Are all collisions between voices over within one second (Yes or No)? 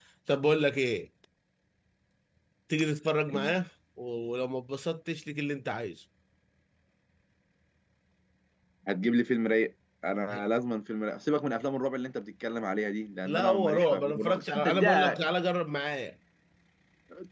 No